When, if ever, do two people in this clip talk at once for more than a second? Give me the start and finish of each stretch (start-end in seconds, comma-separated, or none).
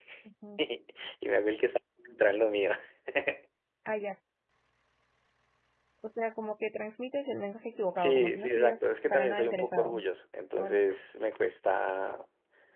8.0-10.0